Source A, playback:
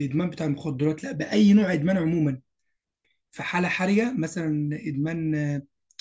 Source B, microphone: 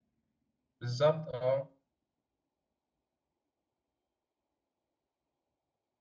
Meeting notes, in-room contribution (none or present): present